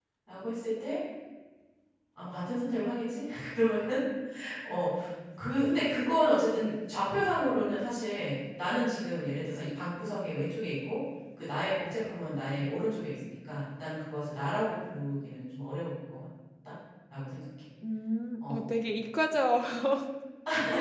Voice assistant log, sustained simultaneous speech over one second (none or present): none